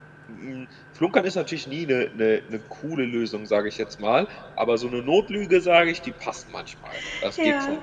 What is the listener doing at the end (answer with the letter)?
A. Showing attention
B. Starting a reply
B